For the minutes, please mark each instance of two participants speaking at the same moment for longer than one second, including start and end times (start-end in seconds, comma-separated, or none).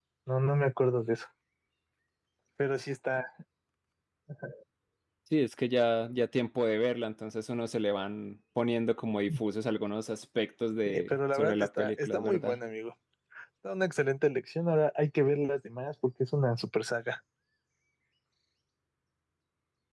10.8-12.6